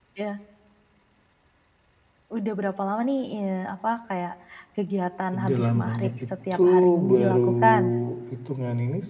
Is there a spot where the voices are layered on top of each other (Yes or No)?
Yes